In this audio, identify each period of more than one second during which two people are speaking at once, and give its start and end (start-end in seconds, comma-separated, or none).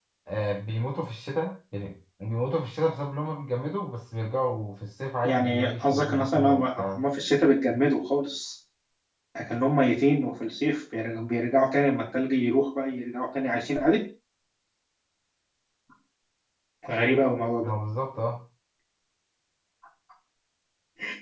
5.2-7.0